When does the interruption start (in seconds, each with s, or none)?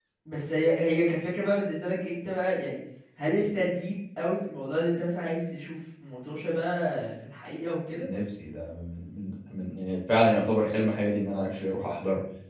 none